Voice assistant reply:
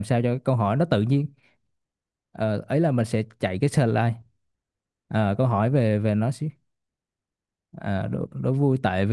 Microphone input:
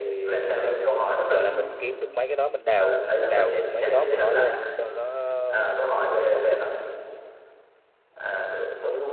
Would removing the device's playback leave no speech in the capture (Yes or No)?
No